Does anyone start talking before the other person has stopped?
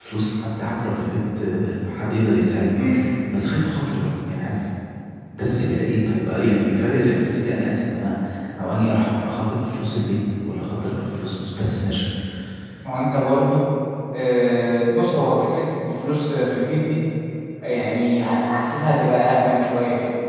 No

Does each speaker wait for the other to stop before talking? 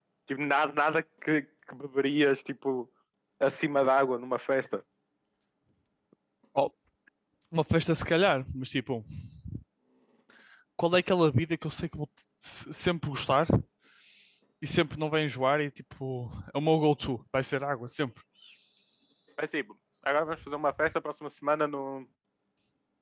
Yes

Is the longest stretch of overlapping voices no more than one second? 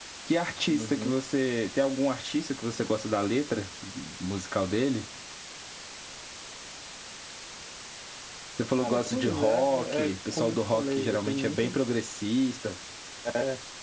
No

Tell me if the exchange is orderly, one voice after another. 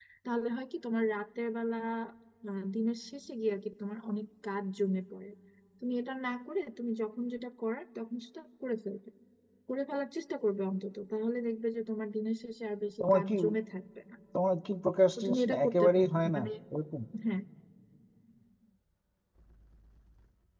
No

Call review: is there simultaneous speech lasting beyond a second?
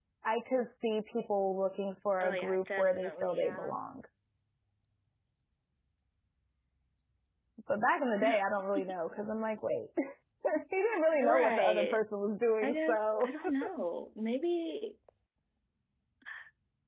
Yes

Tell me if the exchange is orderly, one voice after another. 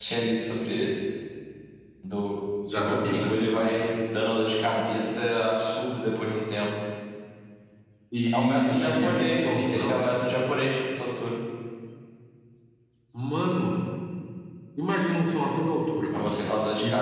No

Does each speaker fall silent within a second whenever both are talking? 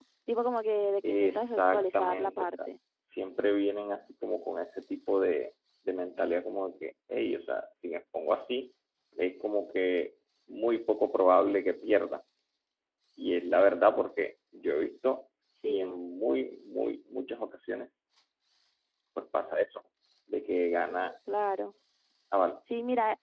No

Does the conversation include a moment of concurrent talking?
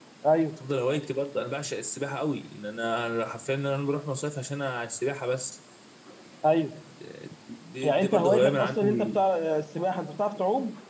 Yes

